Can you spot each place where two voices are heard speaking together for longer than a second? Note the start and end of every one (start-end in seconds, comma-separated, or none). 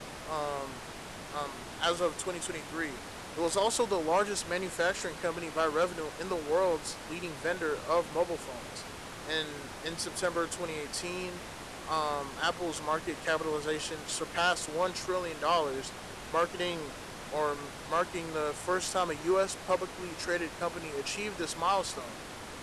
none